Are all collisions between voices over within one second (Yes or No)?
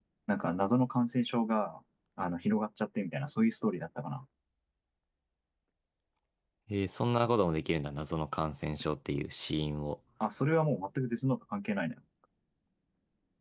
Yes